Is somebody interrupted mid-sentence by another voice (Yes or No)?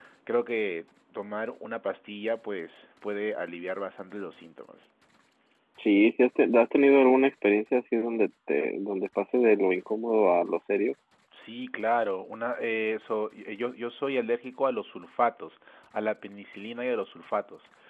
No